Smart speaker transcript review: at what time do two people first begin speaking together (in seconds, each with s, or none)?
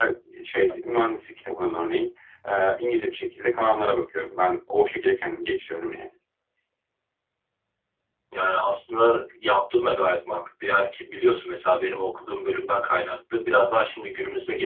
none